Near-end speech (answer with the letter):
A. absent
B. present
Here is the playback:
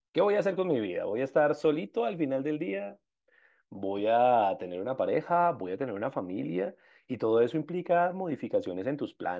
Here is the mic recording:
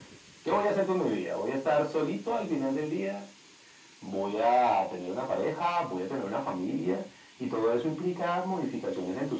A